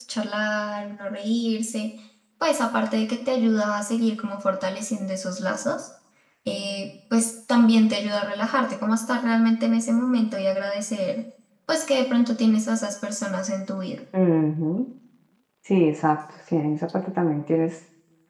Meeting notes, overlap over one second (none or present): none